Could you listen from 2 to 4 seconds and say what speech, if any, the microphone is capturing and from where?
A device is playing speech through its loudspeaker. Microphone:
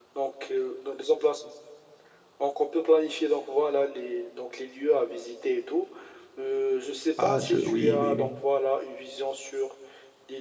echo only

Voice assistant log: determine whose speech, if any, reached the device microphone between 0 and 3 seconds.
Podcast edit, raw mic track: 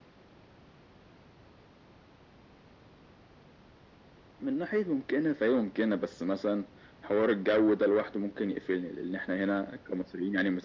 neither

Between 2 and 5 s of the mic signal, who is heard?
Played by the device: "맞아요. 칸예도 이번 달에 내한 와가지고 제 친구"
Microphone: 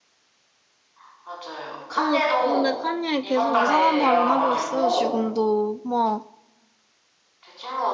both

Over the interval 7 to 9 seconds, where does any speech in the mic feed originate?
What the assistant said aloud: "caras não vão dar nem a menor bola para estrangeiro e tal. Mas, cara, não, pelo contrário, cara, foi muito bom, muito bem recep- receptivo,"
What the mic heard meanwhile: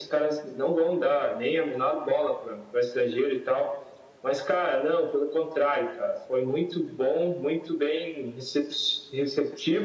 echo only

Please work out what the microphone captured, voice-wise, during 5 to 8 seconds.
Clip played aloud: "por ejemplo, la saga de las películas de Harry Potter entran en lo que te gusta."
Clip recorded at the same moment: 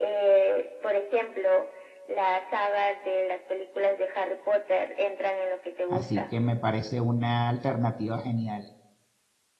both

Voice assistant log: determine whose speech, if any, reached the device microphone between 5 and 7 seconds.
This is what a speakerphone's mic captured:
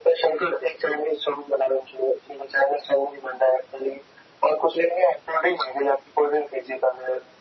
echo only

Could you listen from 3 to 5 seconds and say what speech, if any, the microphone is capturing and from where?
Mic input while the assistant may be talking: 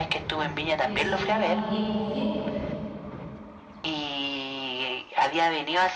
echo only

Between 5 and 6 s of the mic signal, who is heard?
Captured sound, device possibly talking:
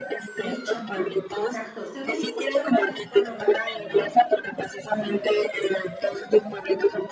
echo only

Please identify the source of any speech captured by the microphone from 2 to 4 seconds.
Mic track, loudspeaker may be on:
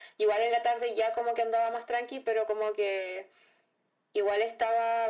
echo only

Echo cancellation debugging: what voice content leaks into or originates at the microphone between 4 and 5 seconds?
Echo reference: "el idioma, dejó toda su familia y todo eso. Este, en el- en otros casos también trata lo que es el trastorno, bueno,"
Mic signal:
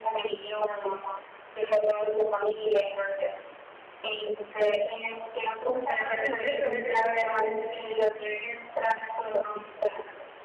echo only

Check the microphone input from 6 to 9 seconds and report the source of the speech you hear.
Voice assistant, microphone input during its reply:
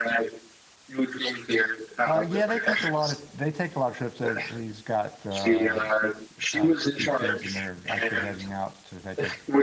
both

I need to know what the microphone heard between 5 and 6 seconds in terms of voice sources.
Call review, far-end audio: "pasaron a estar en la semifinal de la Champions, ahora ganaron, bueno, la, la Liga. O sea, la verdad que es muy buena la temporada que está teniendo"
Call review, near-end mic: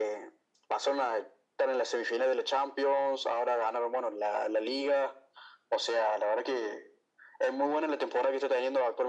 echo only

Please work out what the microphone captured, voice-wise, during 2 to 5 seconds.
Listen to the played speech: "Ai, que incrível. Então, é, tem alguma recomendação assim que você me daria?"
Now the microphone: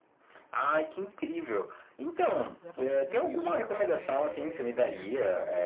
both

